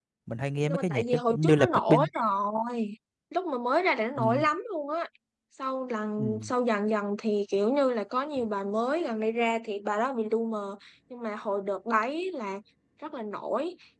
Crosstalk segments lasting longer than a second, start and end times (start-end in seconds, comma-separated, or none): 0.7-2.1